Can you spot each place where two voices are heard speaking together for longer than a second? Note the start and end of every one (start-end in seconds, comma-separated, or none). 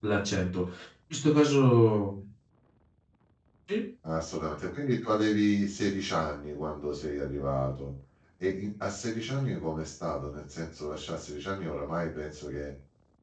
none